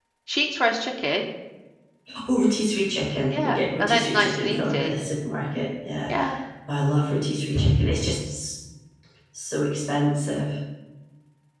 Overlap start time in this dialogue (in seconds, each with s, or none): 3.3 s